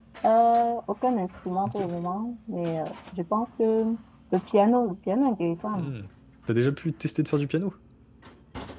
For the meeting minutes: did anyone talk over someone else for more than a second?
No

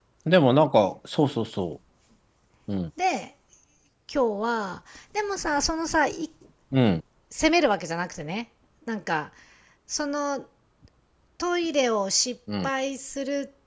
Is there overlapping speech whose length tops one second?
No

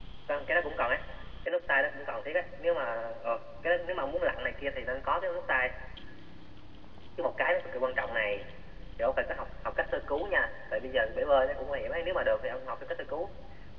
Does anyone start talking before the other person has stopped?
No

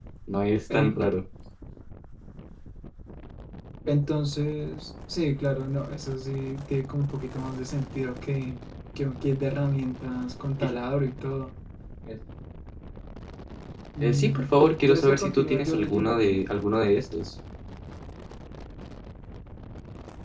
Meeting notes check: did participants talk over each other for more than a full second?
Yes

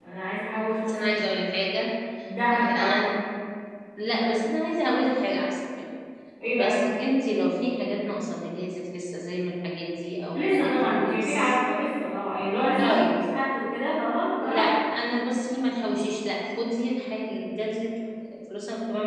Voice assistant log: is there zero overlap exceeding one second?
No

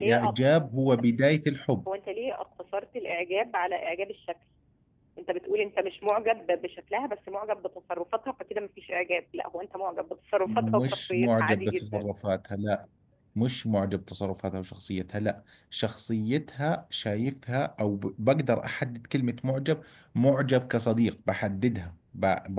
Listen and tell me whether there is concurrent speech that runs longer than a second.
Yes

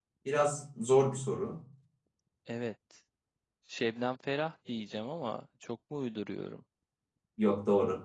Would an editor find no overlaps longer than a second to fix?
Yes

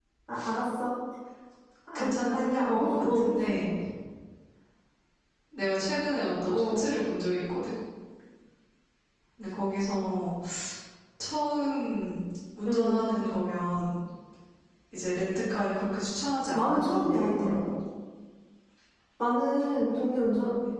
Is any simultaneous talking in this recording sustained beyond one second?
Yes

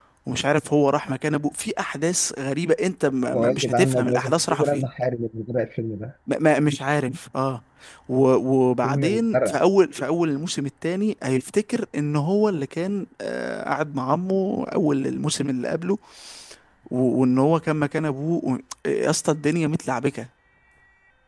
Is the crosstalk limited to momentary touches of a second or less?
No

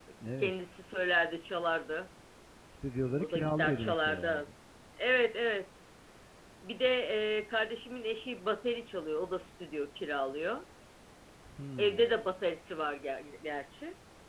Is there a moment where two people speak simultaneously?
Yes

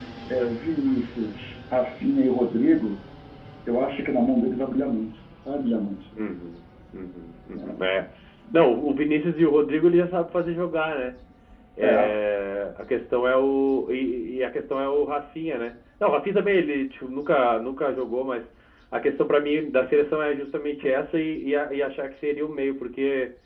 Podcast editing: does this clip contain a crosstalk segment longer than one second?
No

